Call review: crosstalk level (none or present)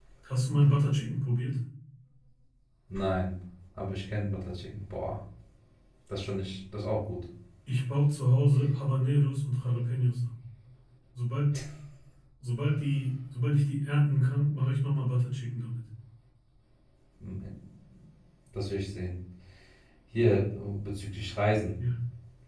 none